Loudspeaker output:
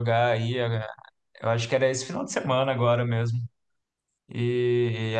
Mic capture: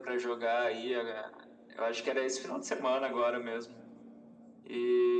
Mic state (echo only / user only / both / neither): echo only